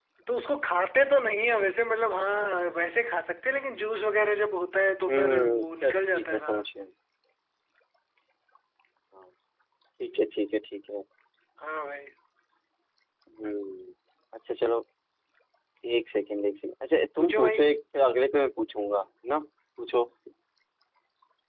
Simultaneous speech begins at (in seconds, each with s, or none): 5.1 s